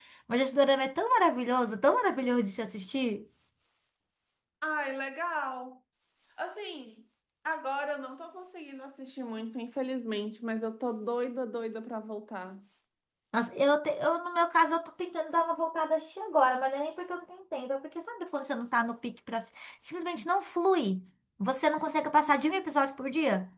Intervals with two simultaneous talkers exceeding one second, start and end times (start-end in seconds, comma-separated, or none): none